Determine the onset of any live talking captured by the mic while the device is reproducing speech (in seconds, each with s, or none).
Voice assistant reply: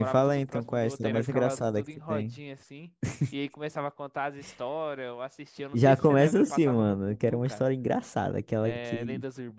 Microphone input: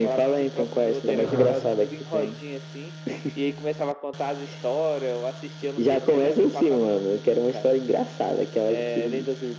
1.2 s